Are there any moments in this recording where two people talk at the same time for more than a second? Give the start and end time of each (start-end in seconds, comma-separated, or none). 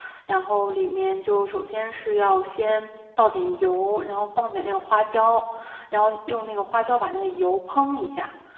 none